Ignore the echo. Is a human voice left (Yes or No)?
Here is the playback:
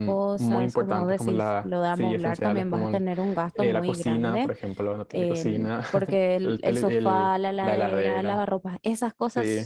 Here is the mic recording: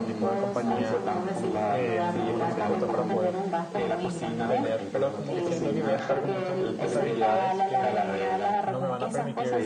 Yes